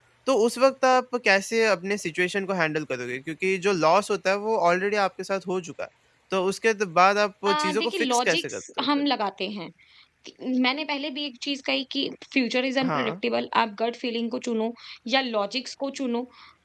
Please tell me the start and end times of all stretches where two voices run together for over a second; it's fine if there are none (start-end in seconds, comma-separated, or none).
7.5-8.9